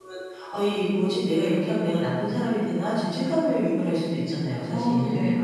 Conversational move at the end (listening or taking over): taking over